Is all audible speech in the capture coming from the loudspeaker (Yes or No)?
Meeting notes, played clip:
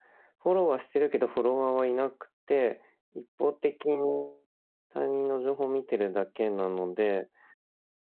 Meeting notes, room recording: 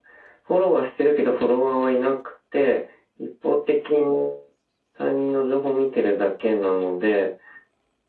Yes